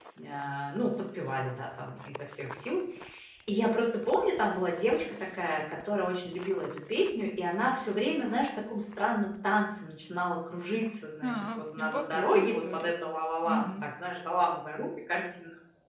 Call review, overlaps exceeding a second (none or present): present